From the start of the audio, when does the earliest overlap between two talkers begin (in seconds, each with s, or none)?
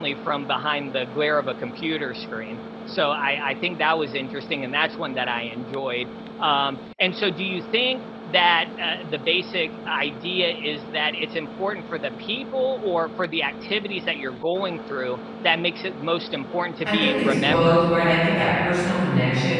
16.9 s